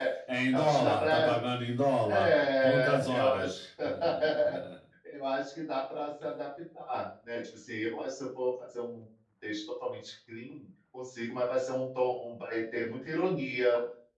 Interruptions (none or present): present